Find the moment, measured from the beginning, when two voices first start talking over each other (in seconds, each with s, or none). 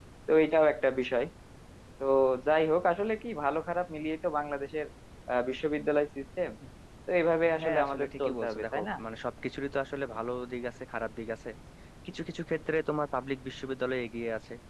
7.6 s